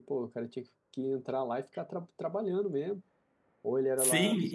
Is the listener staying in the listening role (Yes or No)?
No